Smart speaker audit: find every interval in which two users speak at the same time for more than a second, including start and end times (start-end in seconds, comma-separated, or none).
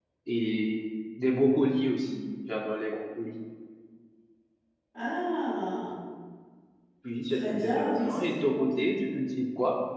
7.3-8.6